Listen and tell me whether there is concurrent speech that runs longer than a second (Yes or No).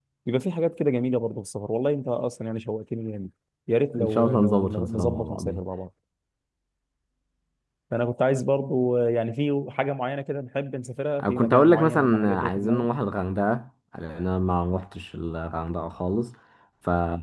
Yes